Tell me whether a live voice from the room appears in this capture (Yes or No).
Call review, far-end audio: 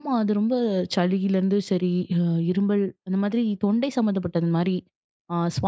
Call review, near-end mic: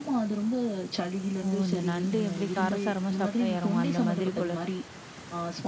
Yes